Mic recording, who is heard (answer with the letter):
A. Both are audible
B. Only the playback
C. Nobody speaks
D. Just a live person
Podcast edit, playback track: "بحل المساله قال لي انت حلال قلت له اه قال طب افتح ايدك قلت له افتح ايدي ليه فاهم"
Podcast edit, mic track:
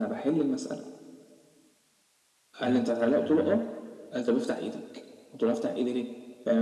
A